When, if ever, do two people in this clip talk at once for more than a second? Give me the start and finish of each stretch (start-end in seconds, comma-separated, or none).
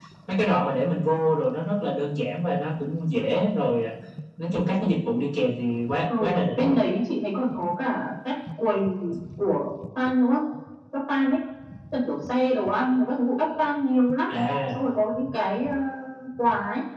none